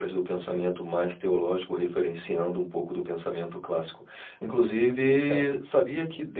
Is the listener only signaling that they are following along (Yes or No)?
Yes